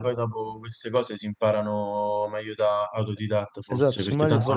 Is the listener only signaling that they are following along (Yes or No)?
No